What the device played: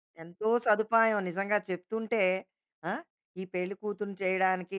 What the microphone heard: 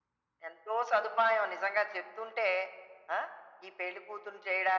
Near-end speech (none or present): none